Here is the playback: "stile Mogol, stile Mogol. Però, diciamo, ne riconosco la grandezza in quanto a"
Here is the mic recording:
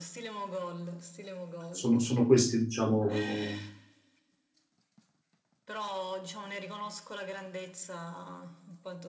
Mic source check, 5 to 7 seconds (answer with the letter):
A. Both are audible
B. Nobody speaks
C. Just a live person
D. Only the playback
D